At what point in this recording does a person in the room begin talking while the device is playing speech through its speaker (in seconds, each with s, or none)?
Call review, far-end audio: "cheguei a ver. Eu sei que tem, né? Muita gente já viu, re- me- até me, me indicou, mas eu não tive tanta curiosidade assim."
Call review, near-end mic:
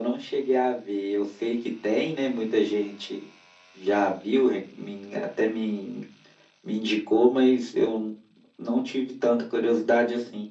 none